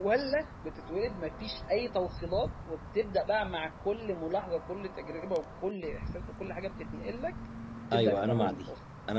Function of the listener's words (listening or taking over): taking over